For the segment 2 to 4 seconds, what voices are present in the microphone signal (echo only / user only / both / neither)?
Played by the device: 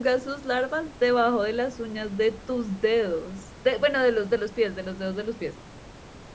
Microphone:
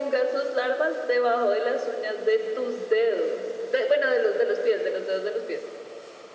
echo only